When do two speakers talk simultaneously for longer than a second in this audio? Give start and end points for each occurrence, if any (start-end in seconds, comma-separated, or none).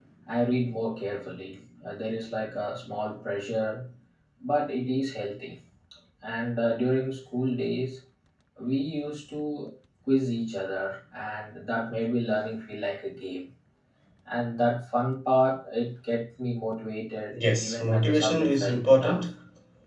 17.3-19.2